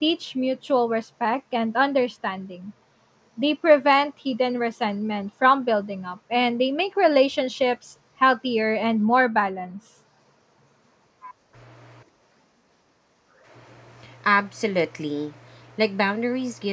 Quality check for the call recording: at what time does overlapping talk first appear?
none

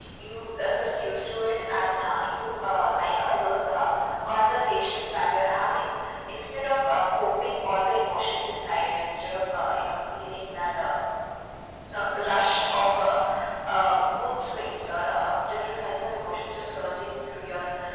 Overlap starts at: none

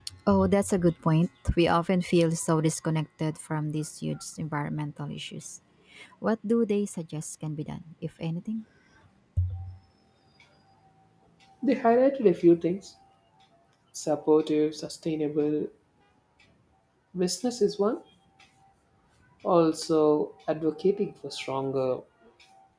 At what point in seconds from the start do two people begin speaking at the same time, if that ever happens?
none

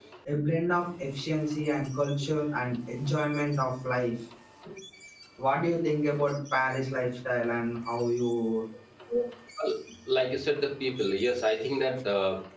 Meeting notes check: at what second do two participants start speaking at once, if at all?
none

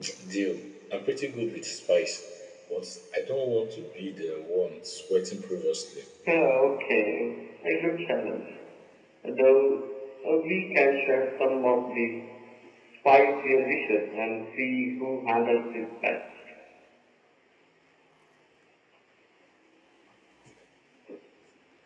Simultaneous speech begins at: none

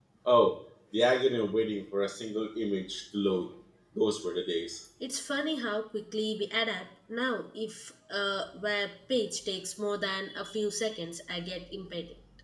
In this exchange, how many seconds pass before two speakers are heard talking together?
none

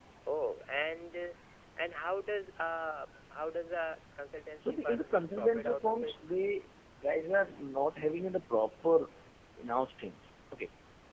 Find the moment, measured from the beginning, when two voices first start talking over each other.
4.6 s

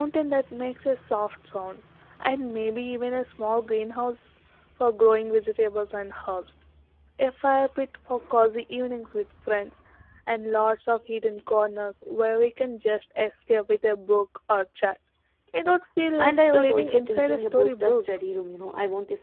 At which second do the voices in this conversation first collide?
16.2 s

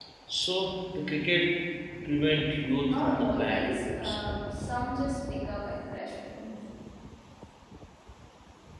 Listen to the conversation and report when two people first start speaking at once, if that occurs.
2.9 s

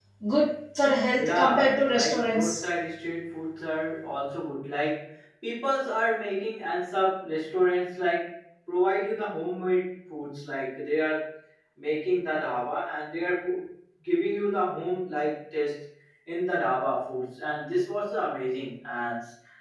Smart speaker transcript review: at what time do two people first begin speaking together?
1.2 s

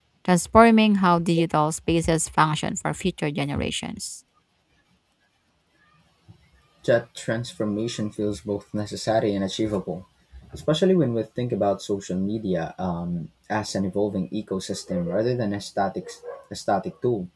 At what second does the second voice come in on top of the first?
none

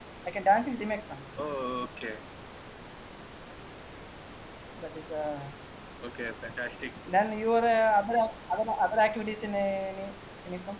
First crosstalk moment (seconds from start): none

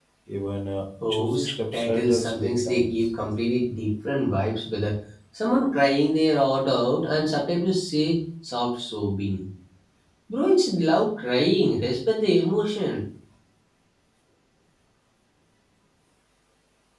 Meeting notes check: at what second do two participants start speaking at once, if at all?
1.1 s

